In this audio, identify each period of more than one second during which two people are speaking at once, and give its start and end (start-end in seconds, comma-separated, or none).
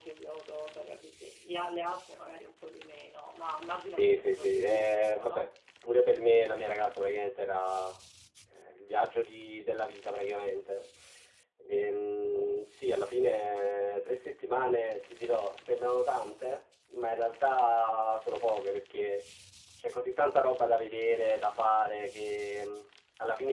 3.9-5.5